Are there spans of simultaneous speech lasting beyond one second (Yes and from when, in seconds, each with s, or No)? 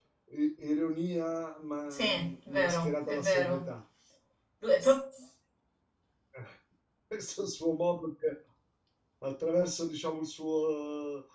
Yes, from 1.9 s